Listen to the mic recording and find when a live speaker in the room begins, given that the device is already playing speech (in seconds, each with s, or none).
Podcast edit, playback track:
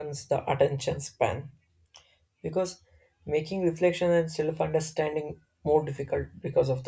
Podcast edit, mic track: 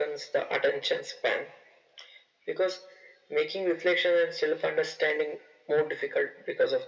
none